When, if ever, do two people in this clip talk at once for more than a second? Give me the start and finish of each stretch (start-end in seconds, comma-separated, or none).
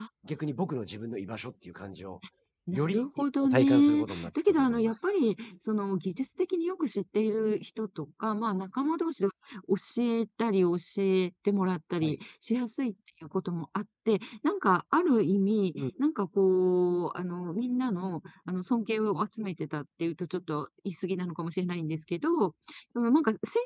2.7-5.0